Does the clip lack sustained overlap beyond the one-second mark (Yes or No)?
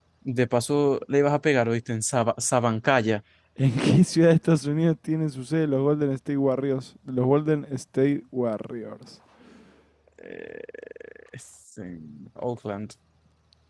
Yes